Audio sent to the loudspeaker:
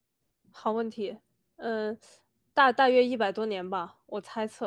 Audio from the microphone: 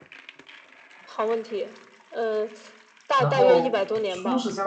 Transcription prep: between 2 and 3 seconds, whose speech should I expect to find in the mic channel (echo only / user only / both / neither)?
echo only